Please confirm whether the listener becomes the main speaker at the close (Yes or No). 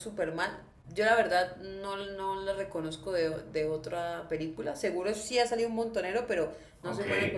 No